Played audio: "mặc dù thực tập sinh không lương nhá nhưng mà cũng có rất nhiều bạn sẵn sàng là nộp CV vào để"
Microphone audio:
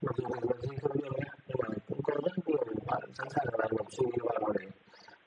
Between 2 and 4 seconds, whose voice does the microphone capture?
echo only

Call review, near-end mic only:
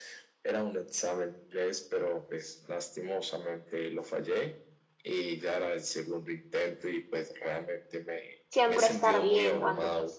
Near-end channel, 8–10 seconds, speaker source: both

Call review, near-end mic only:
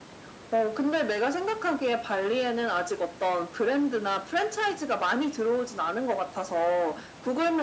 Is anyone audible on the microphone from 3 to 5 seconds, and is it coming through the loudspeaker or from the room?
echo only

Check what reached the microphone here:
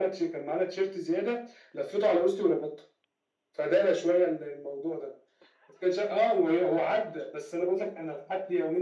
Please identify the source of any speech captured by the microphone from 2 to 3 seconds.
echo only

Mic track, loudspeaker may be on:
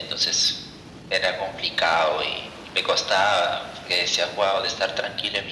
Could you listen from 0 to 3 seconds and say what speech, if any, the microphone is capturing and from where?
echo only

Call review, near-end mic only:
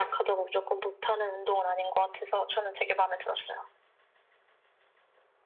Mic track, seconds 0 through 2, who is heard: echo only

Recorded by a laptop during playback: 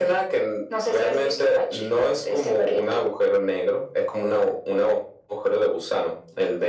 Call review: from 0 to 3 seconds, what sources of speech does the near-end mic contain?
echo only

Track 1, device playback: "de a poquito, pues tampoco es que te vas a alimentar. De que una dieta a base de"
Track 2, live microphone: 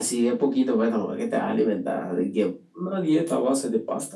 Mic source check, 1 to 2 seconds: echo only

